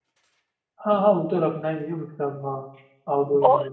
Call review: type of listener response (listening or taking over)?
taking over